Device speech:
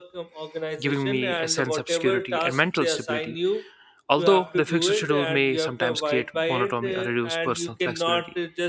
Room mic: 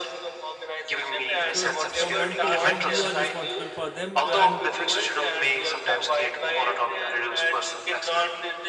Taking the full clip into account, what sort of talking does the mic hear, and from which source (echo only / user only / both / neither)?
both